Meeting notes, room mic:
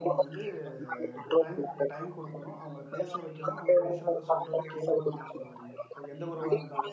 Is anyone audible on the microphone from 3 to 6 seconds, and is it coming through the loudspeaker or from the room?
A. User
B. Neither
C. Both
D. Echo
C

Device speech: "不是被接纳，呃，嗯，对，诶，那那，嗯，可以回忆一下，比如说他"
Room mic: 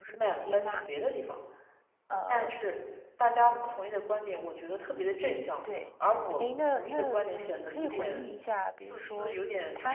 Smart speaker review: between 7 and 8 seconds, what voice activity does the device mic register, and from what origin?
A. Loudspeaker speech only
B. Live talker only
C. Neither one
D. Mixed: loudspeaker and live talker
D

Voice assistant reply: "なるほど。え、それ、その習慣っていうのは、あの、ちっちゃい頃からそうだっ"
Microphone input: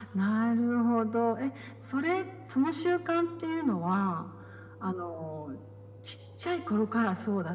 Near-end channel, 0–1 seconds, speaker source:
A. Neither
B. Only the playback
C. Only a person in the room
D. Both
B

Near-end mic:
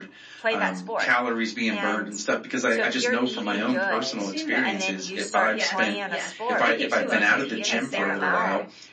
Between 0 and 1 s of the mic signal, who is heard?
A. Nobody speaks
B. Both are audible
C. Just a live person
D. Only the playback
B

